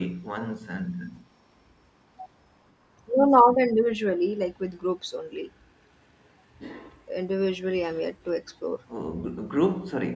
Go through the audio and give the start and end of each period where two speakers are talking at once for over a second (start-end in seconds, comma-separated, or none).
none